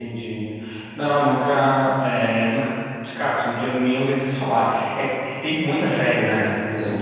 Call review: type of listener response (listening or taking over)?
listening